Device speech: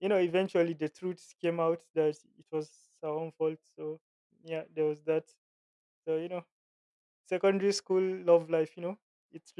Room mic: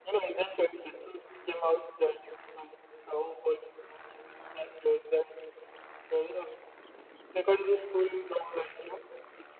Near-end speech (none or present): none